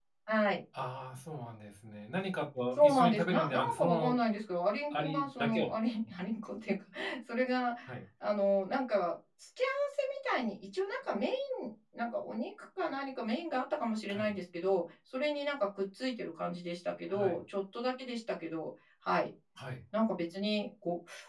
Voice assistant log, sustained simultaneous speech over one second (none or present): present